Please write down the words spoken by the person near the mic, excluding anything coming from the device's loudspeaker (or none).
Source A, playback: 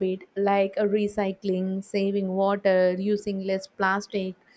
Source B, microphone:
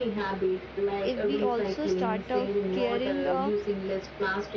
If we also start uh, caring uh,